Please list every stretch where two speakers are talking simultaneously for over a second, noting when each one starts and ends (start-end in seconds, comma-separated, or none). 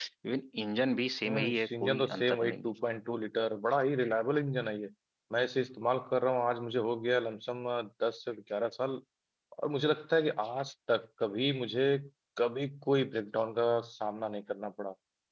1.3-2.7